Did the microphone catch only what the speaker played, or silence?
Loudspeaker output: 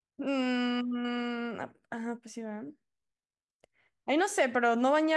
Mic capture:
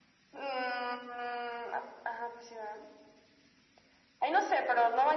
Yes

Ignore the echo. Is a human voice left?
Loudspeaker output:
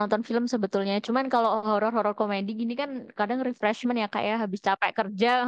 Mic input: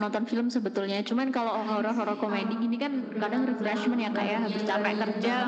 Yes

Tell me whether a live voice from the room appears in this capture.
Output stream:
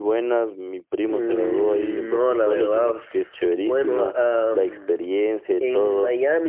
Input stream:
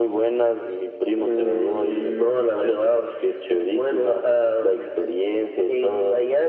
No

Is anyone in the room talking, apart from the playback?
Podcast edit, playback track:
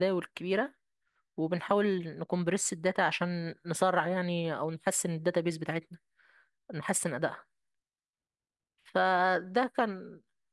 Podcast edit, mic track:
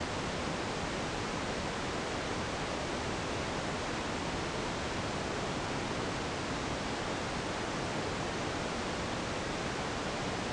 No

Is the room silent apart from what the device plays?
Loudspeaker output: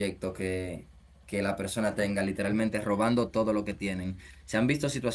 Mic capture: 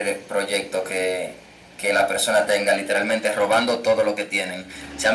Yes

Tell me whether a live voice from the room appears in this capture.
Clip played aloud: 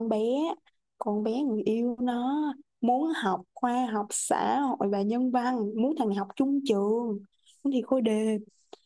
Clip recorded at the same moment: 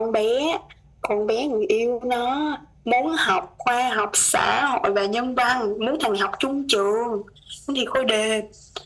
No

